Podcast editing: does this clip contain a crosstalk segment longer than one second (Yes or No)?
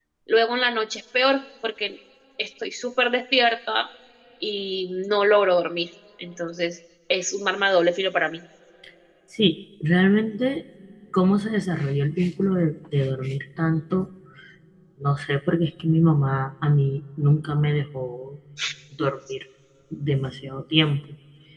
No